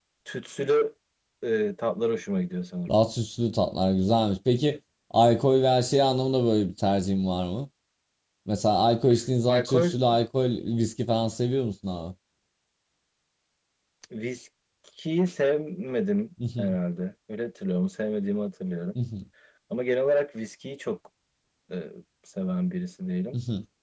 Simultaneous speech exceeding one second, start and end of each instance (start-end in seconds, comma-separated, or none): none